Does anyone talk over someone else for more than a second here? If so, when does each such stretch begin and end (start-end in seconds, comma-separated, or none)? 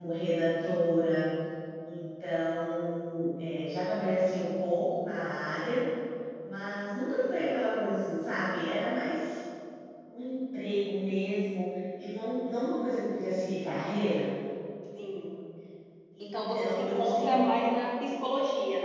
16.2-17.6